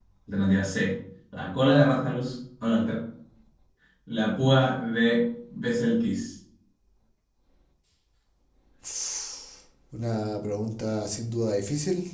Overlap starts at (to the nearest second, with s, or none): none